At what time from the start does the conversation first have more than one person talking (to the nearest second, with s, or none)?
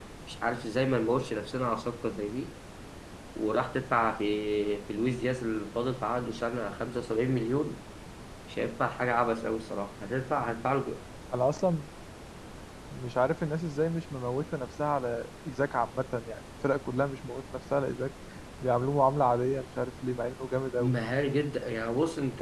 none